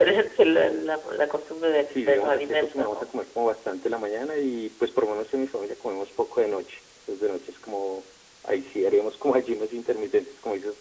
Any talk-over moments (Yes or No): Yes